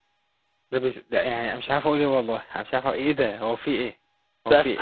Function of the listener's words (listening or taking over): taking over